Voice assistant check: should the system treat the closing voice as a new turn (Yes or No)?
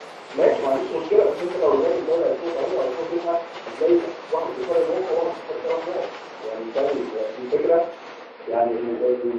No